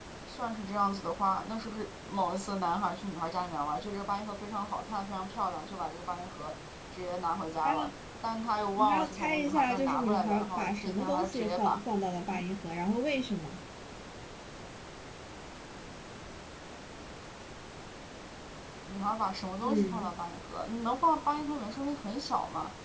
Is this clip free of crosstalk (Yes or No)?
No